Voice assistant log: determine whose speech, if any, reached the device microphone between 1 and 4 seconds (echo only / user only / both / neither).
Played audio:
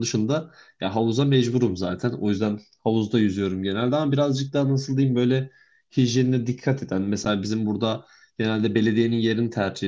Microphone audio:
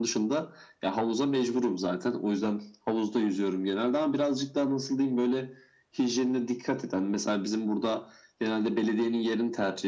echo only